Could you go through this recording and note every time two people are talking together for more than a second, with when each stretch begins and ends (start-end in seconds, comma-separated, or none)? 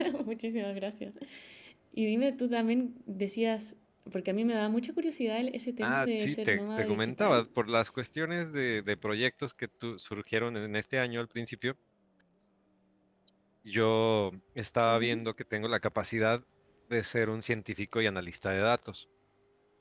5.8-7.5